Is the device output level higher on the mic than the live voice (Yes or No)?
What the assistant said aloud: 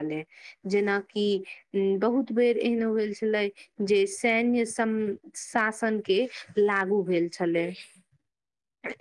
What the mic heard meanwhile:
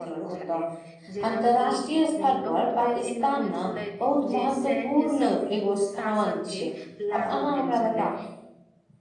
No